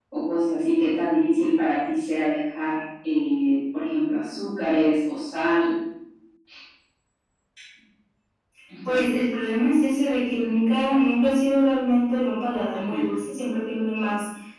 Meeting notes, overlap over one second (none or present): none